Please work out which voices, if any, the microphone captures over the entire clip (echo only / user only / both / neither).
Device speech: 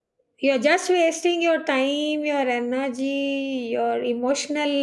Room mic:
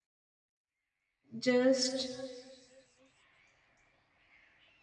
user only